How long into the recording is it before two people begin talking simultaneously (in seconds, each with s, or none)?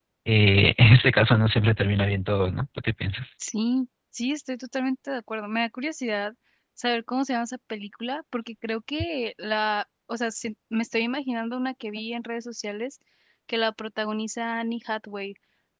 none